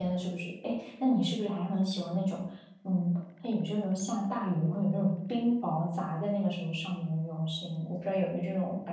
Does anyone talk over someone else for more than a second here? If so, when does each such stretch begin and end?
none

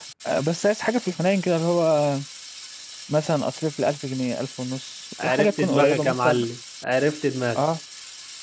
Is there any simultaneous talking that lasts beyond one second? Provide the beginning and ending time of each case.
5.2-6.4

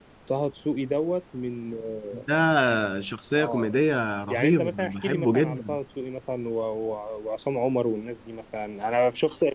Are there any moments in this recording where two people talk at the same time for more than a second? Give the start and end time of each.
4.3-5.8

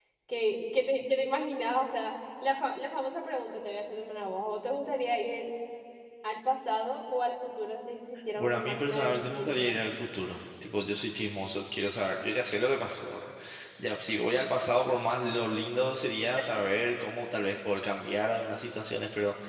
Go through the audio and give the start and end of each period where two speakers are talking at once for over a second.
8.4-9.8

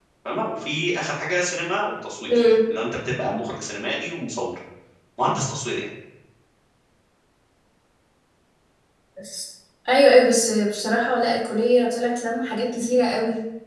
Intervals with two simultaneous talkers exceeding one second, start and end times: none

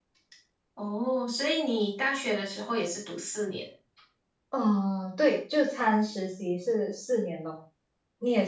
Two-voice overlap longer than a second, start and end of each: none

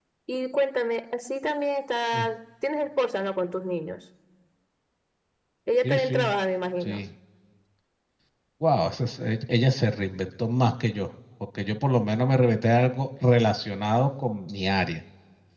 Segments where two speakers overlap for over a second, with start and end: none

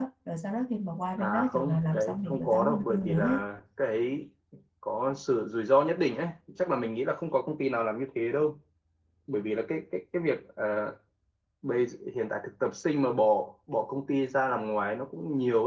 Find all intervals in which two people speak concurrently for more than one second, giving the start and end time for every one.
1.2-3.4

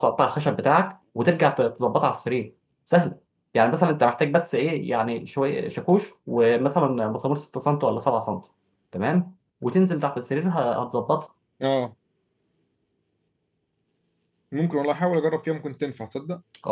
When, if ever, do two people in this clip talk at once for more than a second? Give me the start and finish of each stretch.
none

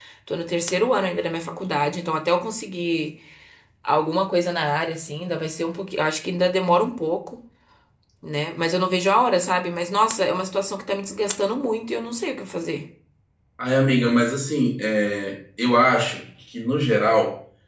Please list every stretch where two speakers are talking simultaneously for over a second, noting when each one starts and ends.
none

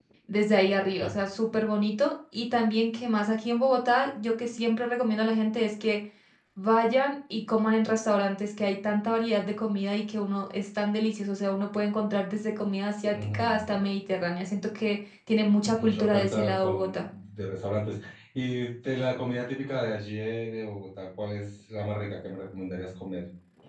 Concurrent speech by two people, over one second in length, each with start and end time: 15.8-17.1

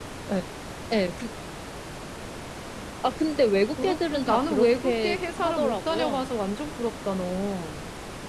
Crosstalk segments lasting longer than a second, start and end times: 3.8-6.3

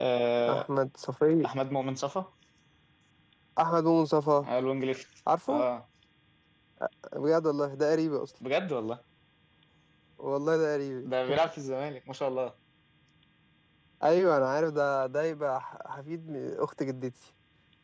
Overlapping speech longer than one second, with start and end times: none

